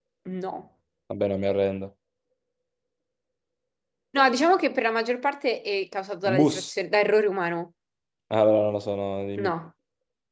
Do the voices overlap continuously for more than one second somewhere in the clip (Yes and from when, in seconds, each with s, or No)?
No